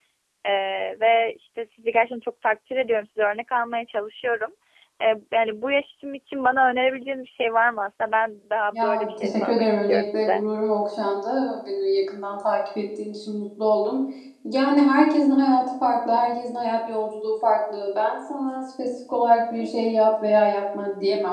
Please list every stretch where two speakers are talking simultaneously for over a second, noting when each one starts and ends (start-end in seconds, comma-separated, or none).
8.7-10.4